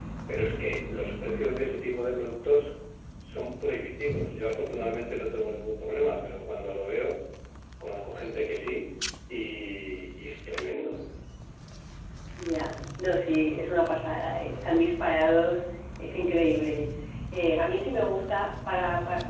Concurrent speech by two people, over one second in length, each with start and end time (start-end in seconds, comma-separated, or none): none